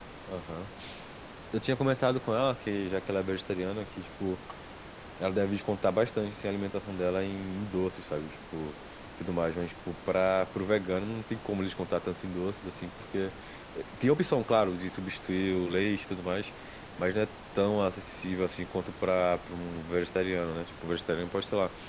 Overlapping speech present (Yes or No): No